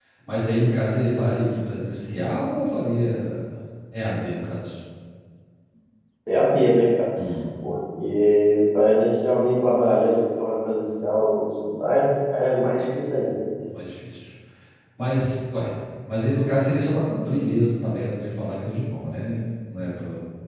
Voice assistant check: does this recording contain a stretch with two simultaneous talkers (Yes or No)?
No